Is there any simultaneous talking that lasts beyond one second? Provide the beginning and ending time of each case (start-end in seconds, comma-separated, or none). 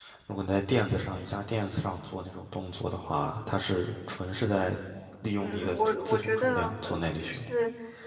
5.4-7.5